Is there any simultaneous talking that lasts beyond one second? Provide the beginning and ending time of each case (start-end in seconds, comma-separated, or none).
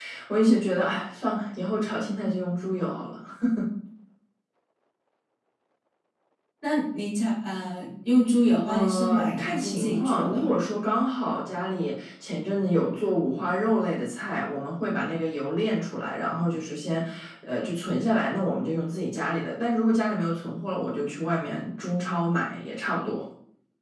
8.7-10.4